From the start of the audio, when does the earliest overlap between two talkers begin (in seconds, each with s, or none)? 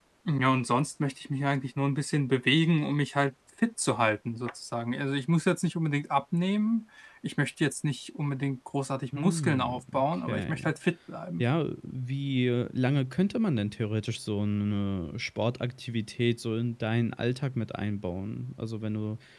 9.1 s